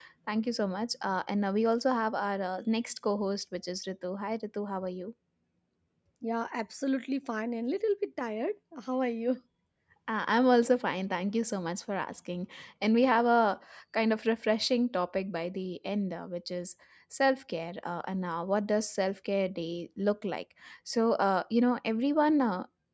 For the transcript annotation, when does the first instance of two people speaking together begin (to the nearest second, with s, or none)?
none